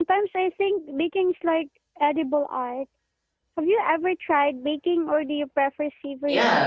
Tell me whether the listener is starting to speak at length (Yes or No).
Yes